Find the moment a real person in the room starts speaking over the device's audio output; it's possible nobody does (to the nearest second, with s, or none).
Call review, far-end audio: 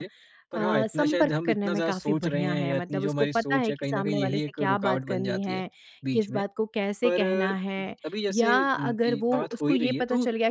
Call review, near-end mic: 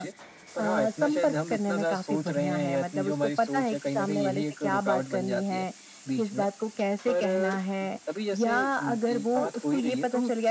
none